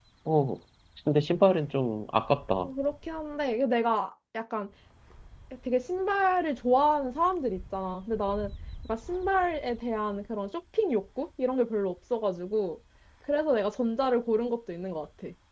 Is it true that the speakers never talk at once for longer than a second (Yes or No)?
Yes